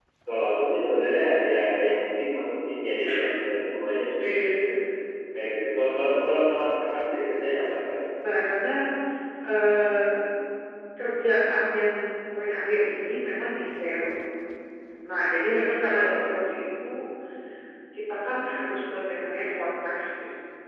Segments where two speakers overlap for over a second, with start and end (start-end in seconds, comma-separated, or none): none